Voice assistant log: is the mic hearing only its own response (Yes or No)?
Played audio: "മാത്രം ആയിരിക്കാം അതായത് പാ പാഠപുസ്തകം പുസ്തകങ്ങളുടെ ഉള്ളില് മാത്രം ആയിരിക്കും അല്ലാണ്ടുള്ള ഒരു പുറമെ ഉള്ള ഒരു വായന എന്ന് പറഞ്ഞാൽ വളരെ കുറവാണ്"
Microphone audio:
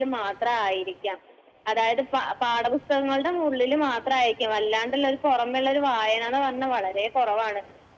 Yes